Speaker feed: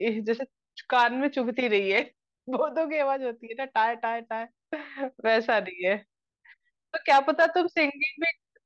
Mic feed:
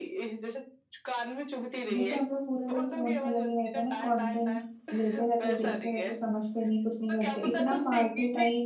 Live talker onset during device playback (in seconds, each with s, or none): 1.9 s